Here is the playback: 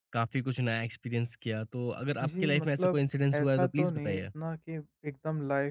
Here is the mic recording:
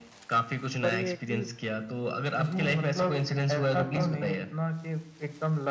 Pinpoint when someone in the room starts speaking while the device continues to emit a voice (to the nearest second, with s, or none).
1 s